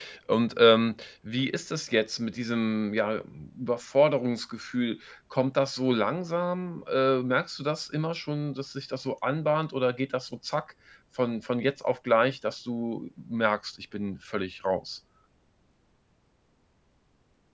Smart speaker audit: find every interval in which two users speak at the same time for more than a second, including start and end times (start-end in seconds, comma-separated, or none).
none